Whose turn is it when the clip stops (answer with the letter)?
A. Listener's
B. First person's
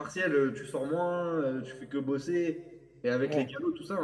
B